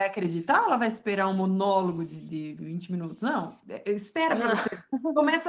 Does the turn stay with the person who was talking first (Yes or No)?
Yes